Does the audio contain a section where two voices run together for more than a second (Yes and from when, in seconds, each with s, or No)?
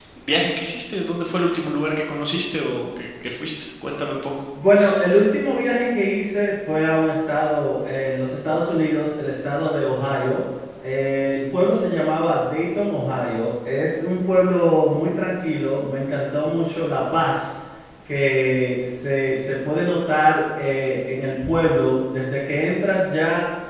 No